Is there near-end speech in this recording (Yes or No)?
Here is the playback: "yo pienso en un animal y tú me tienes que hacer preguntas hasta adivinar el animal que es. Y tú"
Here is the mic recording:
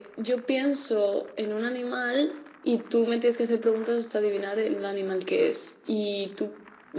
No